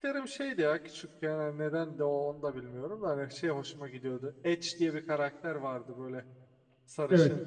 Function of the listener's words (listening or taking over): listening